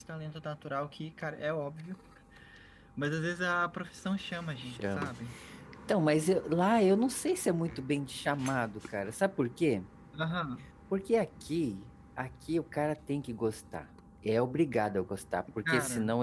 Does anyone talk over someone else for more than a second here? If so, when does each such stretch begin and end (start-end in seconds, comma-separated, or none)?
none